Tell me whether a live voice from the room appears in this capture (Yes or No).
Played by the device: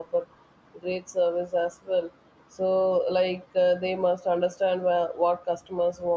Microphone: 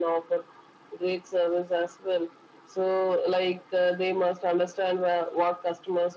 No